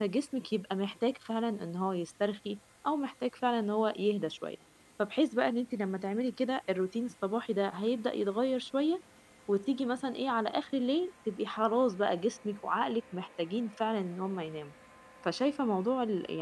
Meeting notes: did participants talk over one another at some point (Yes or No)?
No